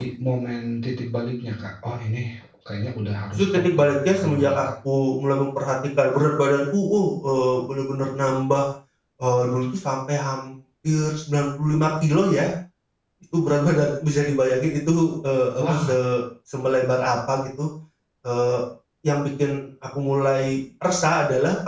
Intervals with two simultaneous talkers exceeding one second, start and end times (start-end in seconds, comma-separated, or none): 3.3-4.6